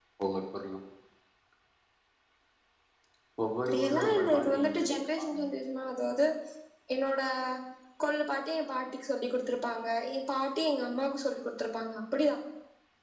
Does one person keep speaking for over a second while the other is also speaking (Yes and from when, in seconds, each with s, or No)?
Yes, from 3.7 s